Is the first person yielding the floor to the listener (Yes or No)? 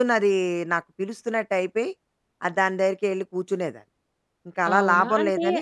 Yes